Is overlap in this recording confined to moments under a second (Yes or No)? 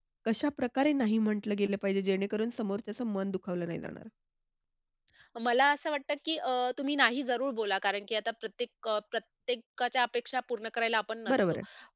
Yes